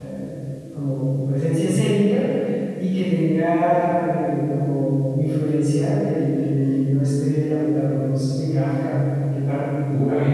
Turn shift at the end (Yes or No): Yes